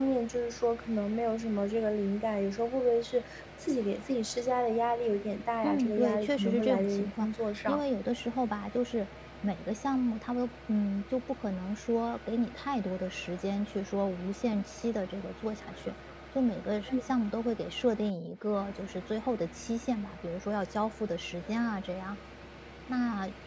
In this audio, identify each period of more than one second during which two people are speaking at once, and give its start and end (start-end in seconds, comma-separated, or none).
5.6-7.3